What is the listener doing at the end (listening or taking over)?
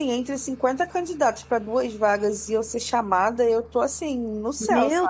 taking over